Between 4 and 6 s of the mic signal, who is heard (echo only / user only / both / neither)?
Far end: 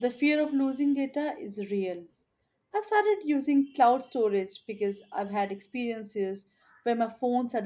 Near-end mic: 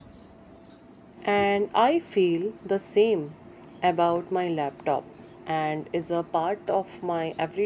user only